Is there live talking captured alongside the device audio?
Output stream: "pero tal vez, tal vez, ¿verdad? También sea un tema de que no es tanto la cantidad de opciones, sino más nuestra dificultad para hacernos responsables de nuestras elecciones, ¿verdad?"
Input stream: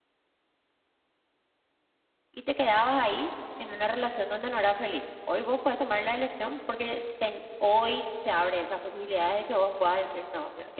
Yes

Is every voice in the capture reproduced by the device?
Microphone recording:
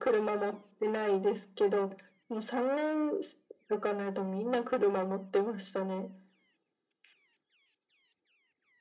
Yes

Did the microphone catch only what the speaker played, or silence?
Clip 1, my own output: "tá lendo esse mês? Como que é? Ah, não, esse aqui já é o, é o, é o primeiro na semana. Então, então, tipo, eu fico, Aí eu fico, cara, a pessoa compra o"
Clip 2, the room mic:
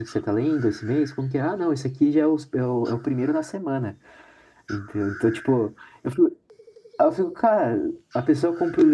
Yes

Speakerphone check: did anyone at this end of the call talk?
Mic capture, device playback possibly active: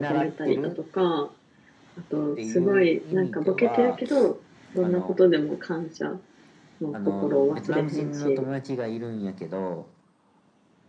Yes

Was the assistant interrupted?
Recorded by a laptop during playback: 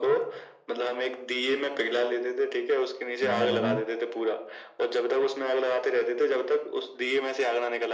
Yes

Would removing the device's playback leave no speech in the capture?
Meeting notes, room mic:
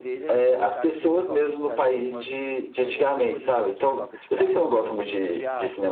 No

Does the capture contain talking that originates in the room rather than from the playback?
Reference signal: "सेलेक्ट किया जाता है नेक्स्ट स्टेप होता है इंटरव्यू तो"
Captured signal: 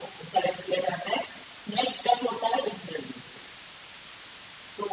No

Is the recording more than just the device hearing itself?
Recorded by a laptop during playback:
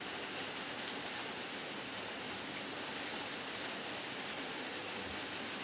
No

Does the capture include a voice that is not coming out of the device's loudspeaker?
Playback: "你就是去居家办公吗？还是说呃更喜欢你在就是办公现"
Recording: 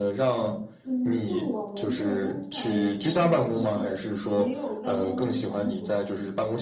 Yes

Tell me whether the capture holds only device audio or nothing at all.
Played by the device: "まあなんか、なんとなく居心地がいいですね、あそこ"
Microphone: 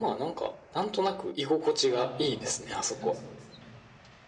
No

